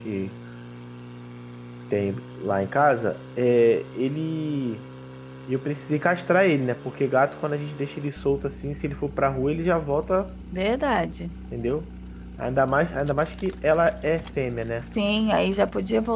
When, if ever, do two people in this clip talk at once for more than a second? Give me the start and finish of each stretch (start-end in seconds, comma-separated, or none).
none